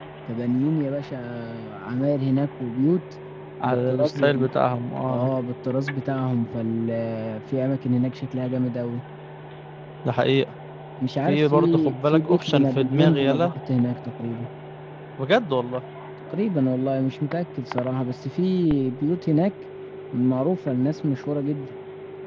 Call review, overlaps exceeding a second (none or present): present